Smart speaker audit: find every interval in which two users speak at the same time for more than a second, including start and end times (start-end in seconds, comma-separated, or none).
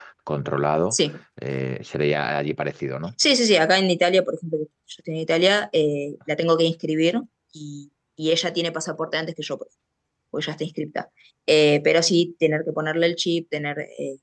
none